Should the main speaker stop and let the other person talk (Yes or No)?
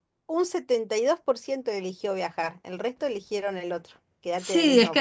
Yes